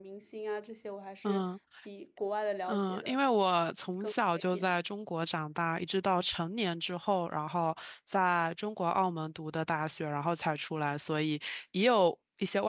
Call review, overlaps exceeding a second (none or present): none